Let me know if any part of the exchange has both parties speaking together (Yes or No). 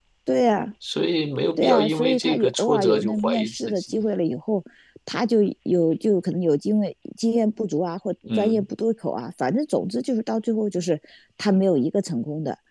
Yes